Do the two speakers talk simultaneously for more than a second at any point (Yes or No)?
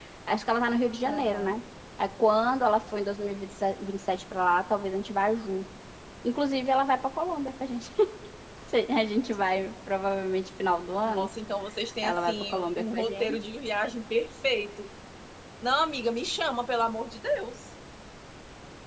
Yes